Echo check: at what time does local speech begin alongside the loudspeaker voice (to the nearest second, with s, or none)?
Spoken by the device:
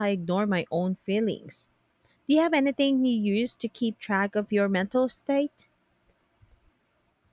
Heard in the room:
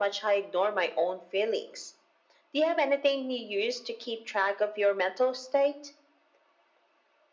none